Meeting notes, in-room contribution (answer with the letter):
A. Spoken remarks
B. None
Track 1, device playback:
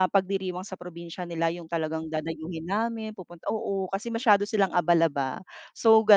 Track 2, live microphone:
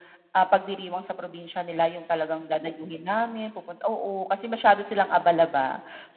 B